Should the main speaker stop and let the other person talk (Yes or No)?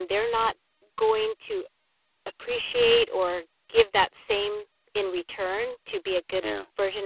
No